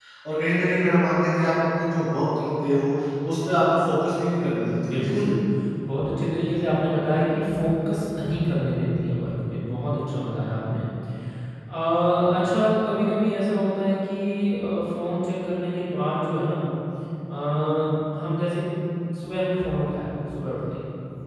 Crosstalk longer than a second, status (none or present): none